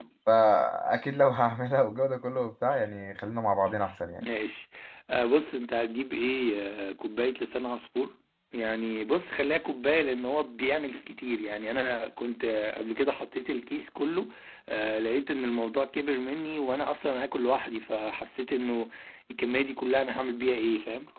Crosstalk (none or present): none